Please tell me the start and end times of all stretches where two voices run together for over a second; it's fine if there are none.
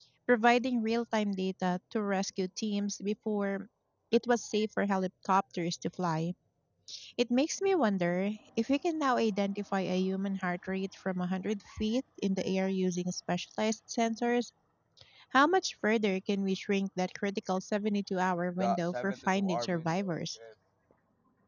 18.6-20.1

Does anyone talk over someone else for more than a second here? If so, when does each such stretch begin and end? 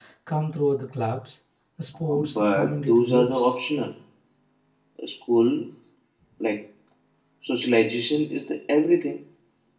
2.0-3.6

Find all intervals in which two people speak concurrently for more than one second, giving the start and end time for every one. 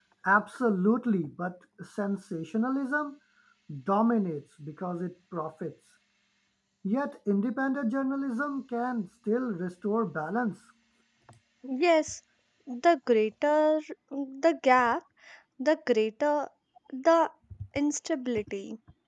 none

